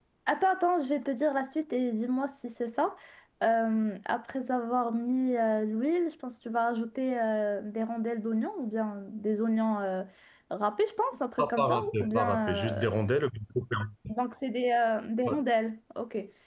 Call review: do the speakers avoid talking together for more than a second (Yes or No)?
No